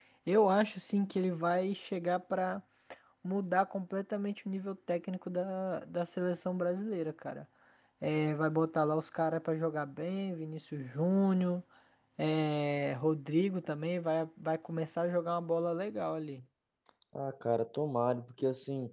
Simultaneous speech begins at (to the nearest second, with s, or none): none